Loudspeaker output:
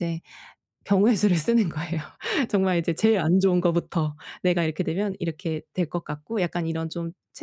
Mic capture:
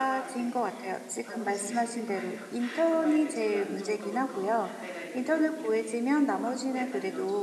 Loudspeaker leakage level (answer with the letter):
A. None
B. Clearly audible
B